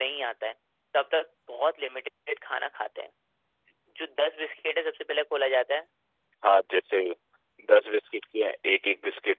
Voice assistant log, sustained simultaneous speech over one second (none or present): none